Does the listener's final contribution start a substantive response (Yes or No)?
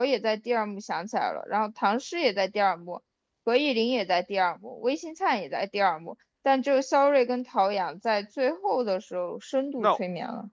Yes